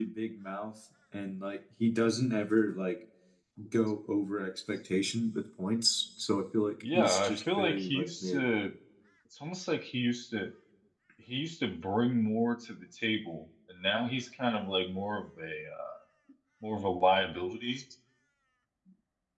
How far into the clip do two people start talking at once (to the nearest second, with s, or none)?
7 s